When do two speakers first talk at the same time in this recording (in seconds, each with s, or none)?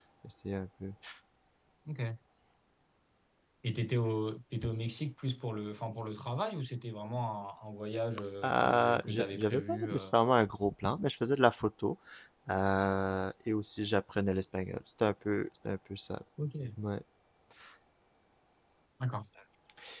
8.4 s